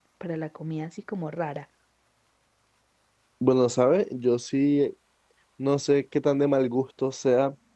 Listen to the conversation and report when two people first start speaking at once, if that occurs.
none

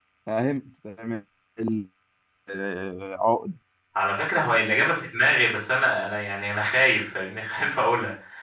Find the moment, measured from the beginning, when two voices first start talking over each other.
none

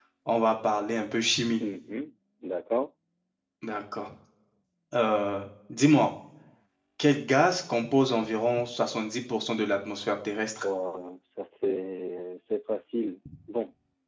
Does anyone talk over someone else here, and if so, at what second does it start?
none

